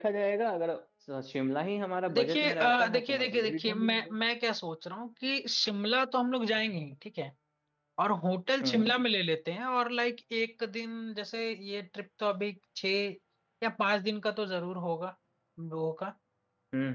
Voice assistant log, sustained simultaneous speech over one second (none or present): present